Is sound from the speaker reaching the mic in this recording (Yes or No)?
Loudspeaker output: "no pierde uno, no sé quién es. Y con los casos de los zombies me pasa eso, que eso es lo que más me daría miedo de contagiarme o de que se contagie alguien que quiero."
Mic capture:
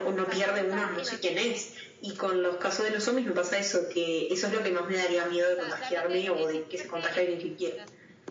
Yes